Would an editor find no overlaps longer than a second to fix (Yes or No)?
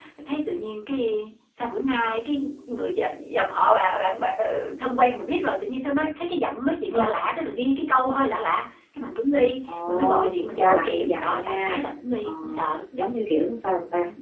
No